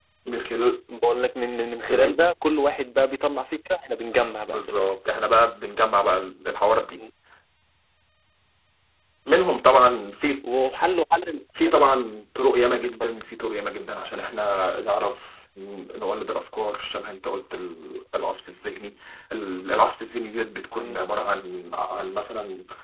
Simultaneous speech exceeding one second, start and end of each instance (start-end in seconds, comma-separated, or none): none